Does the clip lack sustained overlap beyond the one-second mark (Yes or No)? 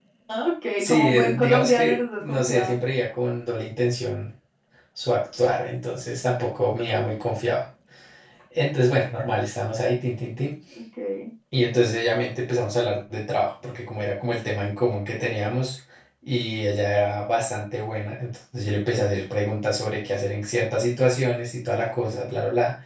No